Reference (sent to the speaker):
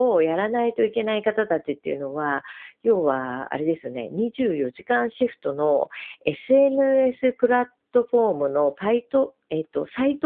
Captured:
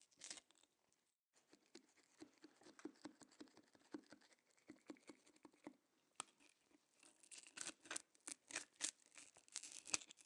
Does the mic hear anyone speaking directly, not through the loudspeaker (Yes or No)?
No